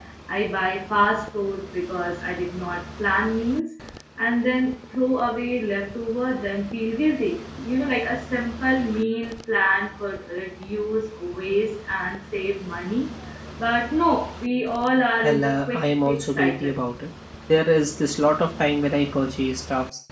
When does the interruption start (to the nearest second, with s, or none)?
15 s